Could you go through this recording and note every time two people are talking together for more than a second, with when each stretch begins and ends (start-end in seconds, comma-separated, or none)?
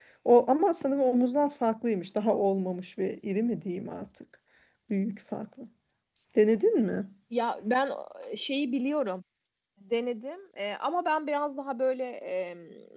none